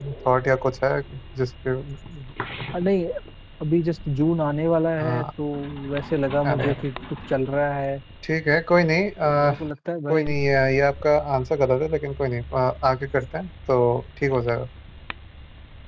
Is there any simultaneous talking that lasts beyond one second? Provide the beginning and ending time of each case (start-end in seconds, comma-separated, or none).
none